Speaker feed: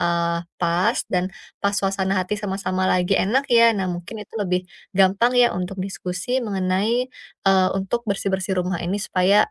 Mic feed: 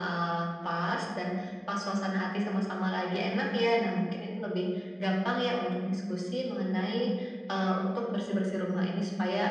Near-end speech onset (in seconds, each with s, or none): none